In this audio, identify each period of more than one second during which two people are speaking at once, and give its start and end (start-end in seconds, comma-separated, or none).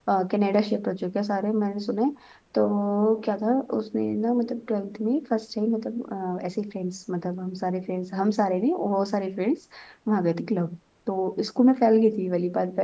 none